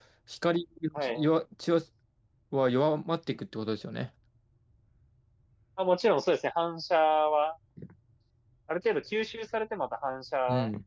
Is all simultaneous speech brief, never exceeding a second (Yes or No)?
Yes